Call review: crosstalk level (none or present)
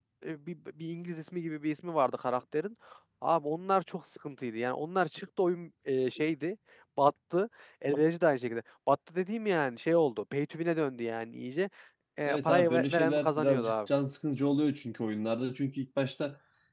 present